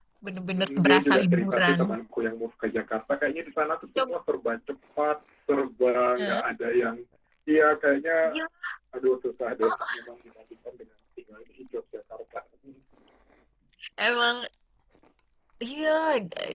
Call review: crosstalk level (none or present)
present